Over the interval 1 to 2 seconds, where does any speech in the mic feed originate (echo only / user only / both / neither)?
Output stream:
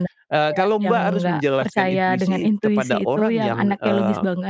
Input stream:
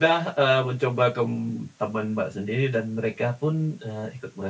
user only